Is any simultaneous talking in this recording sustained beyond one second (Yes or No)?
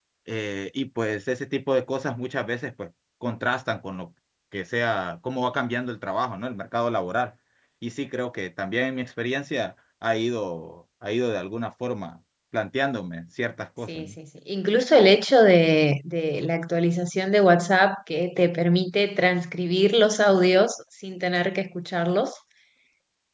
No